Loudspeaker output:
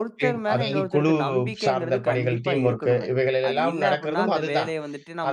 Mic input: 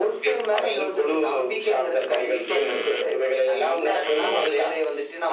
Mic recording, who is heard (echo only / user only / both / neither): echo only